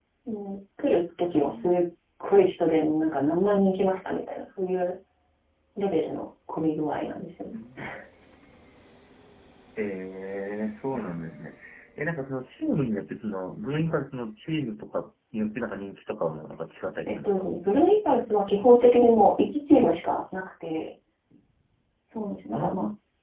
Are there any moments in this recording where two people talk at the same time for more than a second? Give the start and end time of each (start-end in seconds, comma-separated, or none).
none